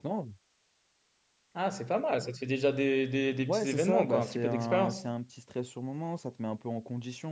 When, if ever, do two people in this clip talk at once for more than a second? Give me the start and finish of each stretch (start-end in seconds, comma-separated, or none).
3.5-5.0